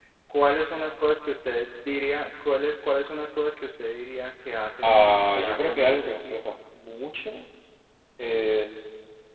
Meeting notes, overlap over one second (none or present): present